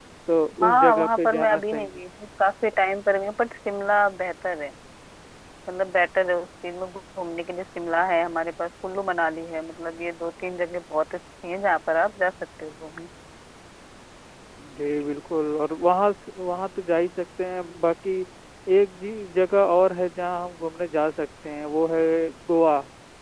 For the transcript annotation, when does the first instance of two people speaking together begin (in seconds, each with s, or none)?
0.6 s